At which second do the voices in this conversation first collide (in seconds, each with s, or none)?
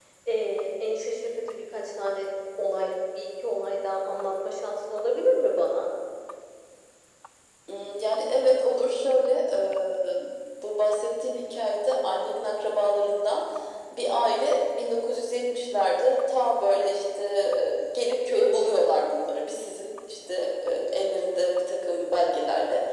none